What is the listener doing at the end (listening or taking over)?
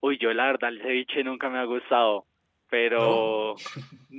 listening